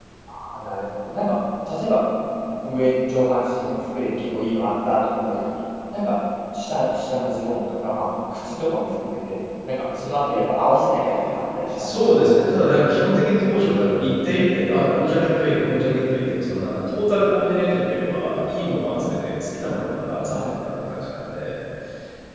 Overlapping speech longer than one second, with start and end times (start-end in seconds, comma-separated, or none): none